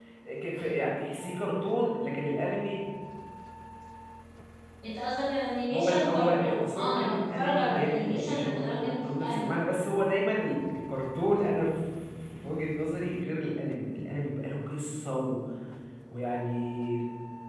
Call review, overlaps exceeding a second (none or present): present